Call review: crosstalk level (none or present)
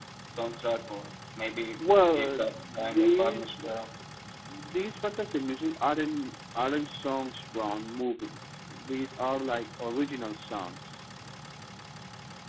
present